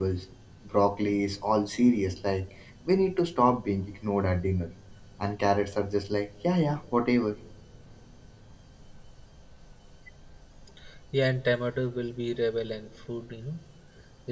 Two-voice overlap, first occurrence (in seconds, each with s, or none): none